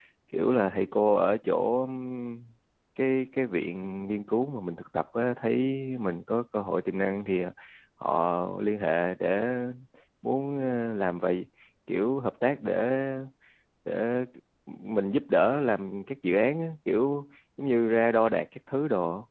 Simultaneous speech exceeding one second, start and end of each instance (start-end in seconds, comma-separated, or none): none